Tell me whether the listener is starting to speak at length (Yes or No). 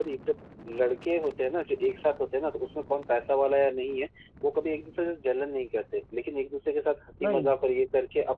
No